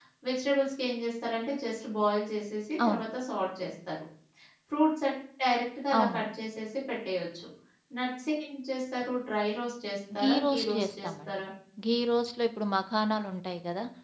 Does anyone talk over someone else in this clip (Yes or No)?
Yes